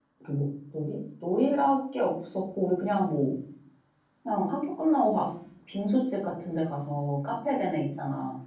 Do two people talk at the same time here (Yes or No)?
No